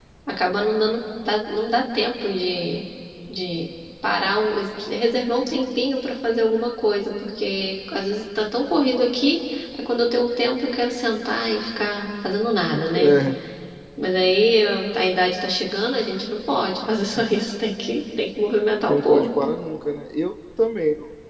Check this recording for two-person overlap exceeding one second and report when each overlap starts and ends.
none

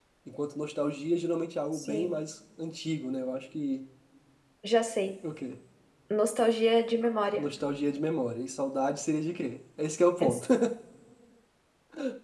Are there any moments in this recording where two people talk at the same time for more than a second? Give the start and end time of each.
none

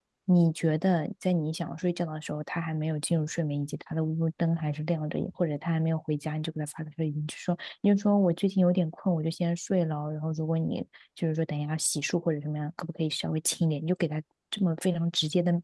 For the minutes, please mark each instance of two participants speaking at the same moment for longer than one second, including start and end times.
none

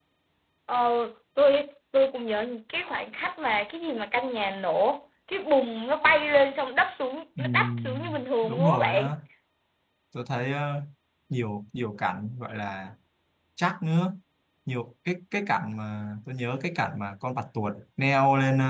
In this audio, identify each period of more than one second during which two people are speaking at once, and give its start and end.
7.4-9.0

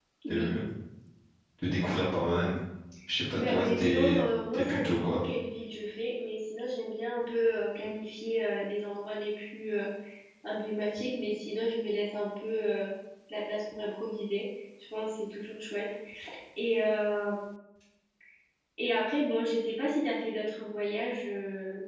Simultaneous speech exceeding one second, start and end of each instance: 3.4-5.2

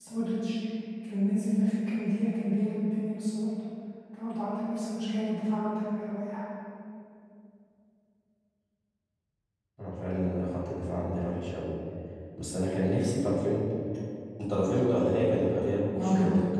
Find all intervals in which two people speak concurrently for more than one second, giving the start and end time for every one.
none

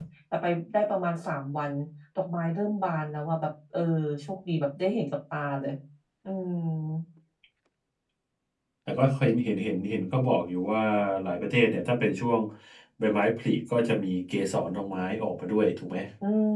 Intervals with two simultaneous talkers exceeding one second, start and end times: none

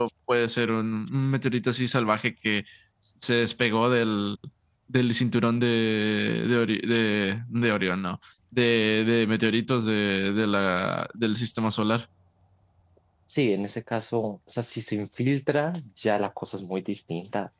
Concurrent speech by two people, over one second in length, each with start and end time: none

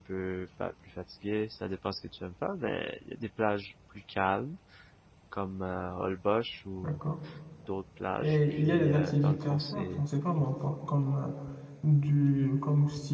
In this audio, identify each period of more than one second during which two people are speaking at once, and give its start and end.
8.2-10.0

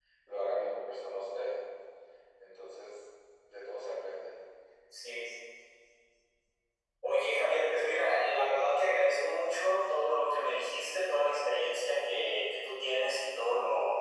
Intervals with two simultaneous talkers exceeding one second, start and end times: none

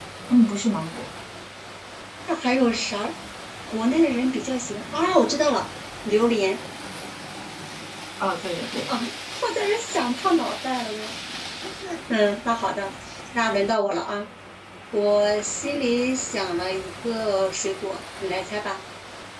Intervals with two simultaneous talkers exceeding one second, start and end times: none

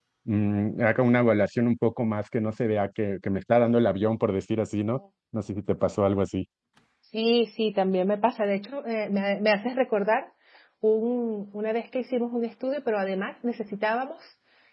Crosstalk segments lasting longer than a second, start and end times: none

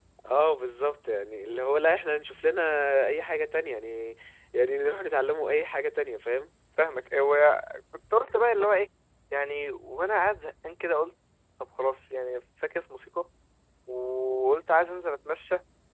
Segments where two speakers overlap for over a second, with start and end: none

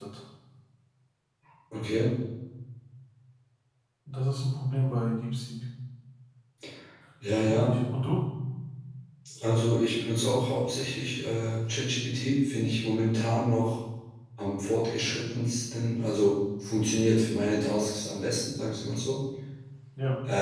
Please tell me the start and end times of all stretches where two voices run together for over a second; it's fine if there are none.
none

